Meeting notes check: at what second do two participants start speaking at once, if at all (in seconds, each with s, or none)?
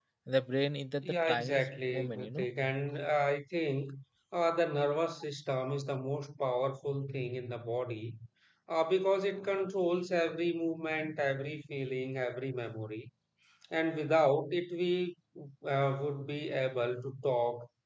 1.0 s